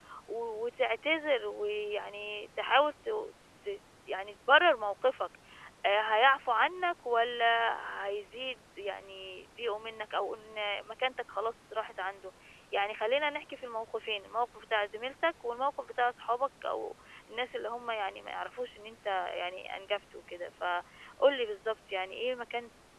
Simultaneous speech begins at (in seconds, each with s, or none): none